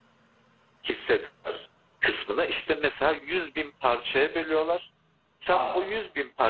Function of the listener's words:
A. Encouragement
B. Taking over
A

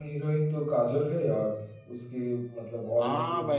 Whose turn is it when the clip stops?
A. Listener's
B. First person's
A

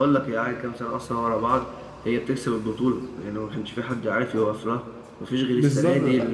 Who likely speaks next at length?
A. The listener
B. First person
B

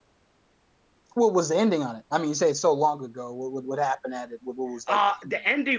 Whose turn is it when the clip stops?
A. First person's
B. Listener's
B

